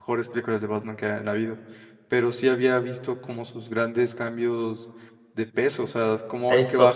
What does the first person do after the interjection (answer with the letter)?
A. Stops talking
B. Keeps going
B